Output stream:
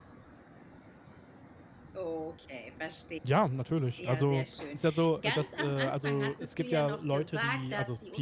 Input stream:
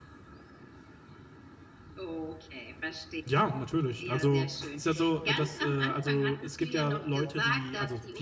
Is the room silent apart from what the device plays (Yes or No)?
Yes